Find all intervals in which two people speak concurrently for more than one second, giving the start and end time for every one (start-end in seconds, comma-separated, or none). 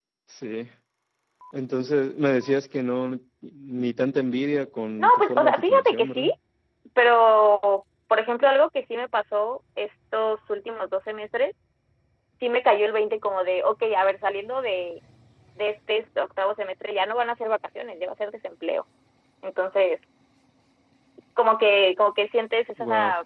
5.0-6.3